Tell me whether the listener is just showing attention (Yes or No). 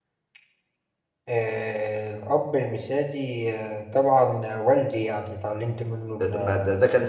No